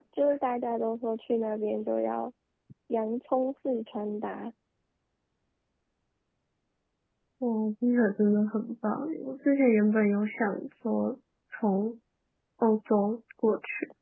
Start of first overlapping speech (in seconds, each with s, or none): none